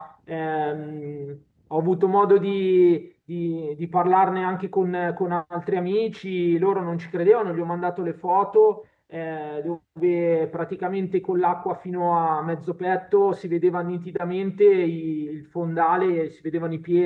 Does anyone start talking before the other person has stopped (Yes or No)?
No